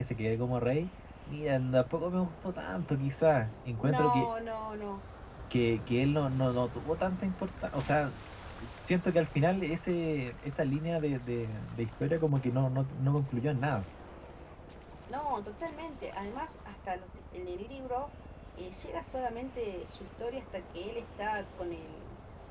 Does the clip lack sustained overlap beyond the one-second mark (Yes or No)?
Yes